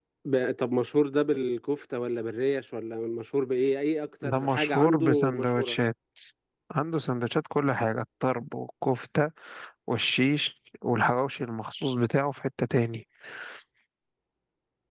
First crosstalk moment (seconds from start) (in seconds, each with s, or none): 4.2 s